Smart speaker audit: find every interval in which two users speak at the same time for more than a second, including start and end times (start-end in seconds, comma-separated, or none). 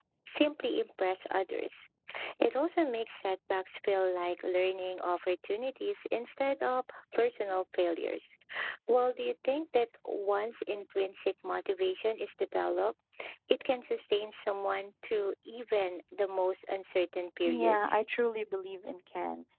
none